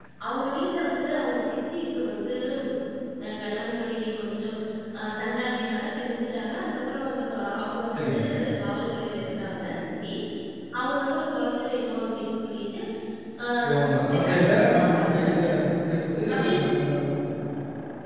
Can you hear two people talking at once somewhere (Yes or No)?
Yes